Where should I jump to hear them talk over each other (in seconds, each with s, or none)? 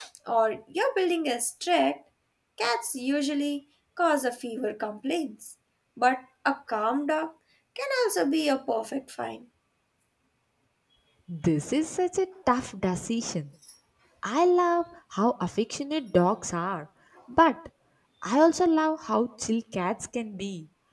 none